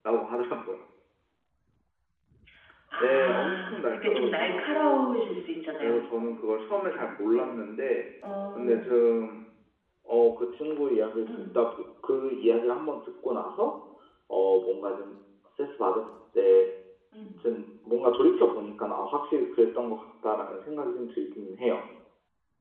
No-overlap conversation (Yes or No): No